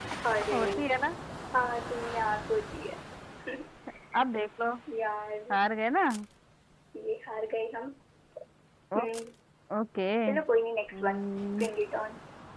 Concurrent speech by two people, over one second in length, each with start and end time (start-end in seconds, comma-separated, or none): none